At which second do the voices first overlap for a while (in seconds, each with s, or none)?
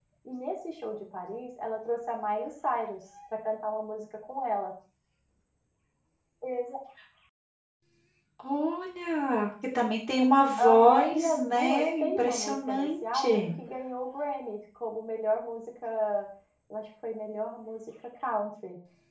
10.6 s